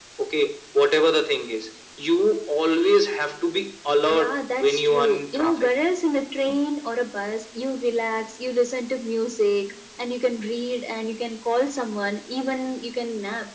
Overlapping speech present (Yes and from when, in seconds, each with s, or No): Yes, from 4.1 s